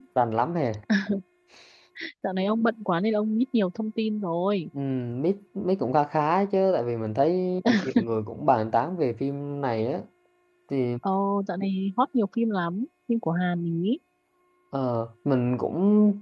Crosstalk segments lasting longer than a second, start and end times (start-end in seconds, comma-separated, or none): none